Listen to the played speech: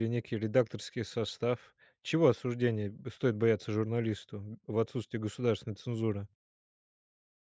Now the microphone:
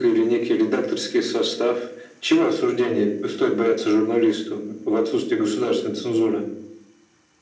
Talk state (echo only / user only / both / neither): echo only